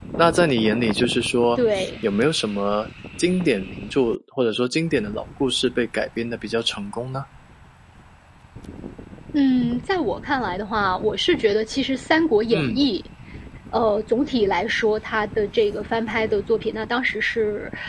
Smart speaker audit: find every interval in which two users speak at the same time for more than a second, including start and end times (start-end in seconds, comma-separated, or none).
none